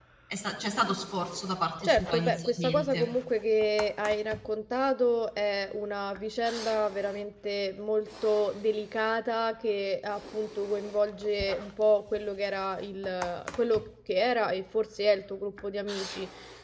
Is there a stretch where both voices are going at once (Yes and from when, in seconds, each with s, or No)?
Yes, from 1.8 s